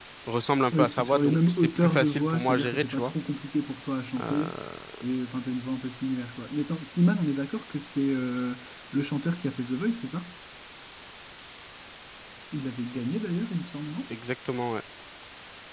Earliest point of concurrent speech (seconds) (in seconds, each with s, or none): 0.7 s